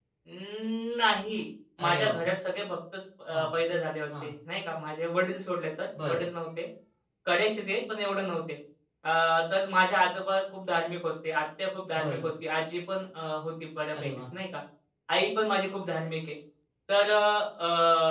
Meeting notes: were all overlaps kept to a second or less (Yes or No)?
Yes